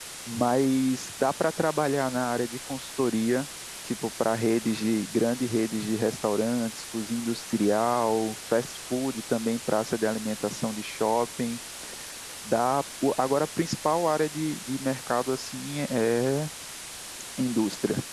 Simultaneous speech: No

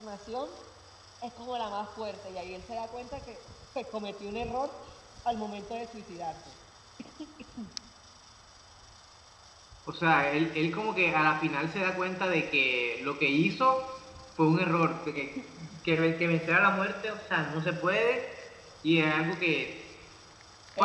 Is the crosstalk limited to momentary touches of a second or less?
Yes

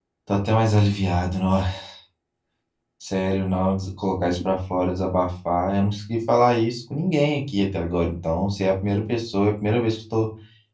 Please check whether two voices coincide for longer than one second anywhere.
No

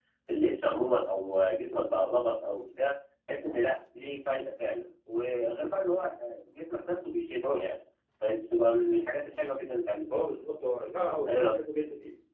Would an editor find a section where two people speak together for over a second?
No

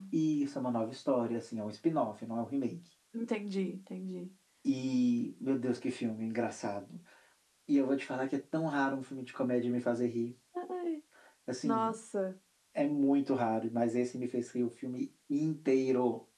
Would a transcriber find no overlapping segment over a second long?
Yes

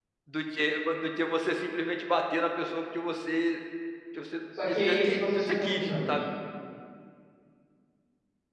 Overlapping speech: Yes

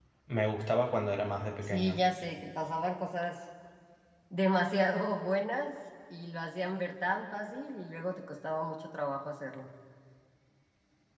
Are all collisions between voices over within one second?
Yes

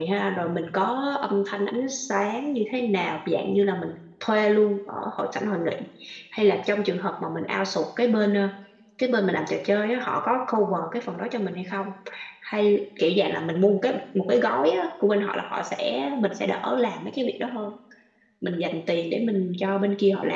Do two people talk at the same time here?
No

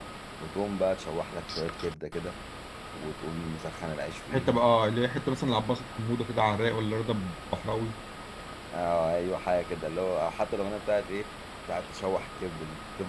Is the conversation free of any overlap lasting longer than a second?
Yes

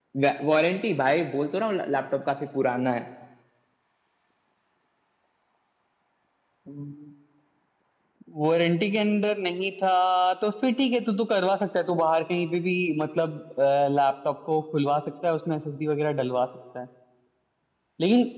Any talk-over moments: No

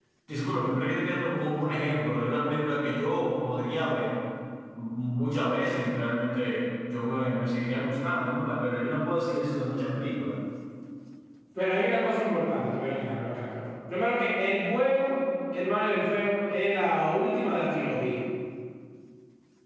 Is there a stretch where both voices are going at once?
No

